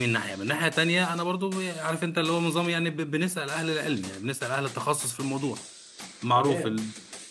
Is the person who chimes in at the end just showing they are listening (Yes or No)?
No